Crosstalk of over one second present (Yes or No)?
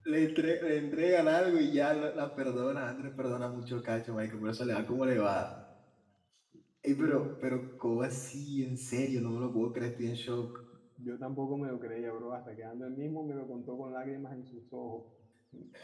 No